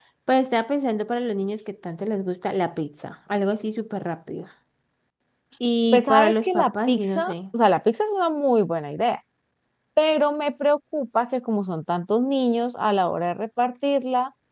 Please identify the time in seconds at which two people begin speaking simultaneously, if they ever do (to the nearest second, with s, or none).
6 s